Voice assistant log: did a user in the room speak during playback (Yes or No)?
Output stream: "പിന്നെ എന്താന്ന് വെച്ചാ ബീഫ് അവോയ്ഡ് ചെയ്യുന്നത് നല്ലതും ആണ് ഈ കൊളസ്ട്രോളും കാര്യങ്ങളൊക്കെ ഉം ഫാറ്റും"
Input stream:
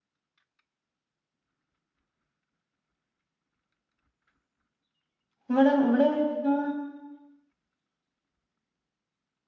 Yes